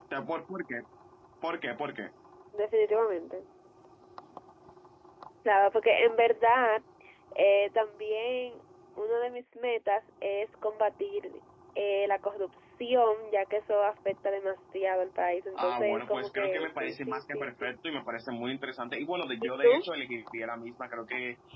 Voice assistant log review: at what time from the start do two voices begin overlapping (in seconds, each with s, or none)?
15.6 s